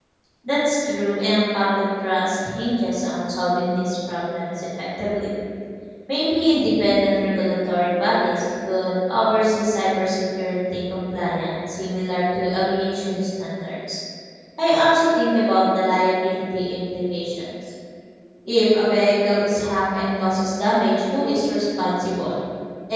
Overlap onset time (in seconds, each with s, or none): none